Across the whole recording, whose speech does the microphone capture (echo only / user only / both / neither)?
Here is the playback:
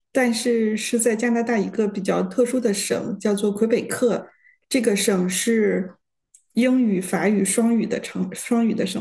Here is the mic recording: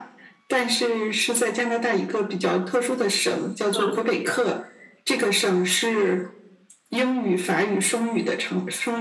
both